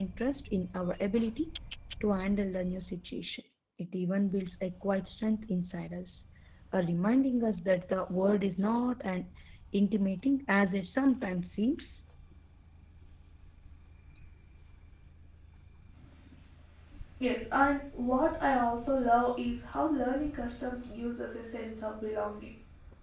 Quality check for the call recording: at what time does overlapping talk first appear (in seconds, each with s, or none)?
none